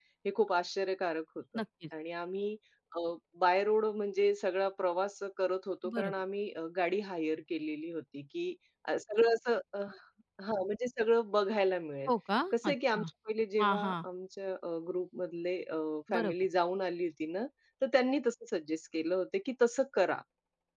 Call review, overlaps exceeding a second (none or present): none